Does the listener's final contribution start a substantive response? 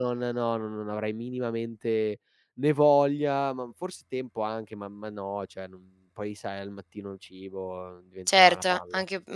Yes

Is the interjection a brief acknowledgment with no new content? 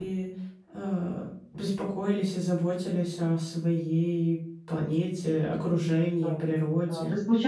No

